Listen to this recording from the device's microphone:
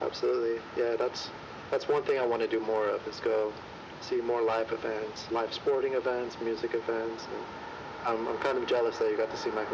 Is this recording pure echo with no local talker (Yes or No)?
Yes